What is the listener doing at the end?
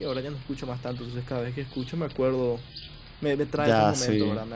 listening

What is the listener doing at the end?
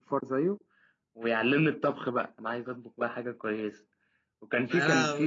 listening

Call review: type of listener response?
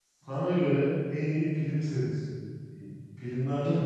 taking over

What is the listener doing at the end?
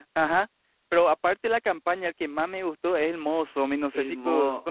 taking over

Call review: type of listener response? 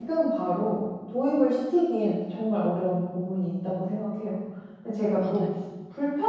listening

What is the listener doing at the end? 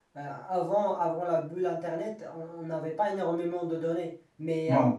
listening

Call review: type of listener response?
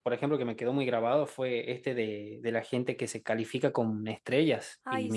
listening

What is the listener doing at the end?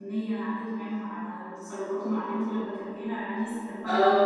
listening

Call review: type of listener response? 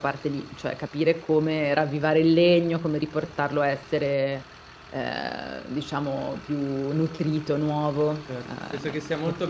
taking over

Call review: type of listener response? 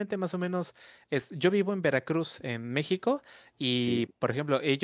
listening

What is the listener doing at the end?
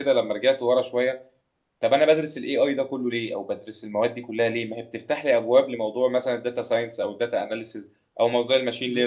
listening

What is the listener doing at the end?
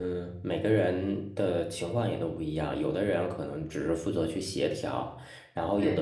listening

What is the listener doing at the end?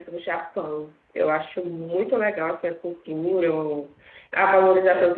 listening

